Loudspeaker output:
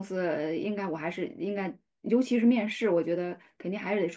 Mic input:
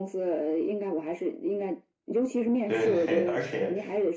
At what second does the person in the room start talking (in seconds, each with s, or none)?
2.6 s